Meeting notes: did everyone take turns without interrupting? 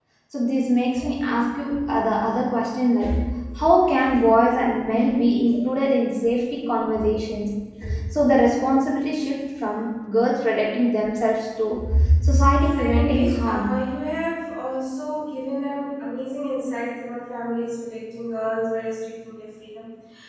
No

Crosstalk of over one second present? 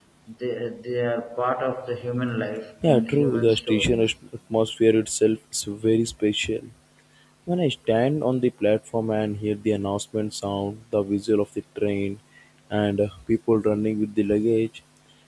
Yes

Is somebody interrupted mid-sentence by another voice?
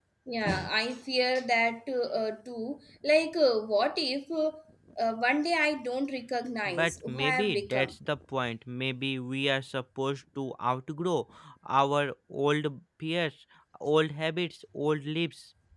Yes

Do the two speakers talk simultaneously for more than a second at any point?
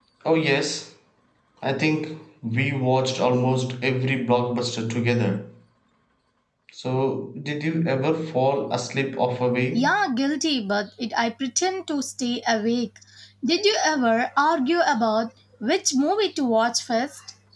No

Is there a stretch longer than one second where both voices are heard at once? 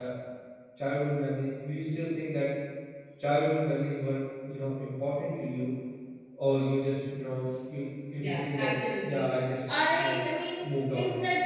No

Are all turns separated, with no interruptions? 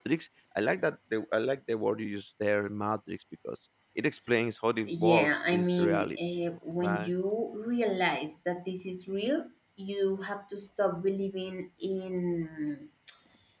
No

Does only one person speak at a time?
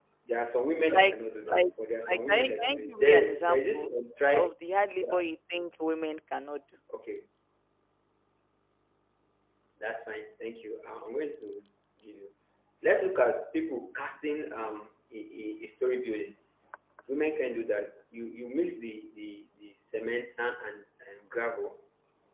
No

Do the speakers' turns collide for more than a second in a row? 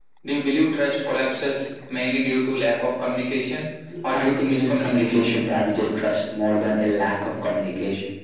Yes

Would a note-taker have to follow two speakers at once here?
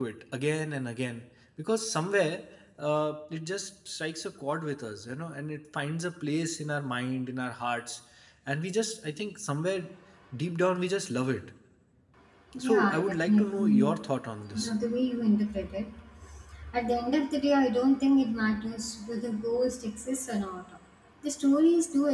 Yes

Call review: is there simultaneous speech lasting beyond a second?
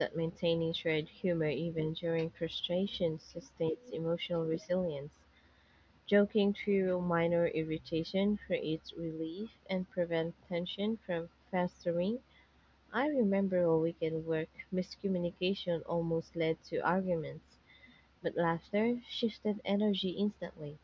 No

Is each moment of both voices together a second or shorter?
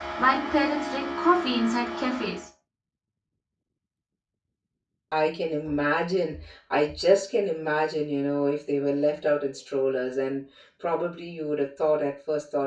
Yes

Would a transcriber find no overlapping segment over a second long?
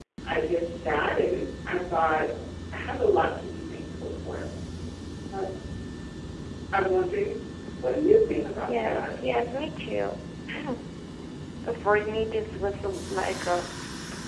Yes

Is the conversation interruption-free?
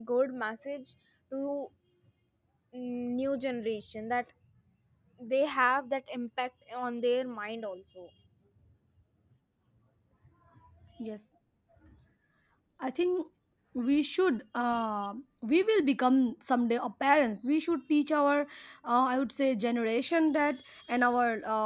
Yes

